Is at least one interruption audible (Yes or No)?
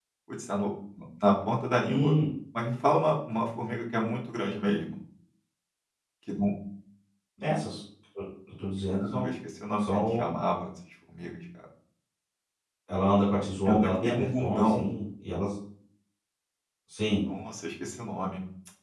Yes